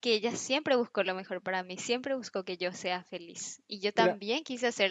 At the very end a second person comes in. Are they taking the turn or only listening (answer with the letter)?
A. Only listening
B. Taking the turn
A